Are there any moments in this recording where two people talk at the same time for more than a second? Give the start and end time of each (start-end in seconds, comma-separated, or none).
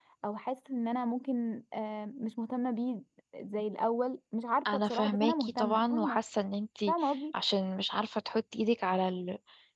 4.9-6.2